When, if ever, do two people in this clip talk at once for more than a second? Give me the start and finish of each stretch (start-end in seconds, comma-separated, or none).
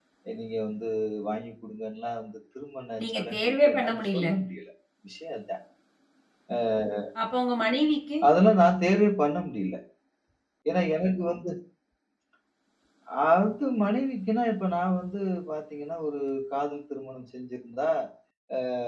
3.0-4.2